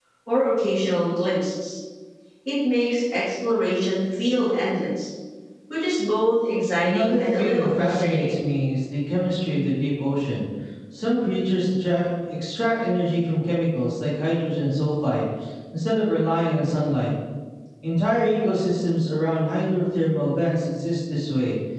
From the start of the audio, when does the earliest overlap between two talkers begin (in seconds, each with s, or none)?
6.8 s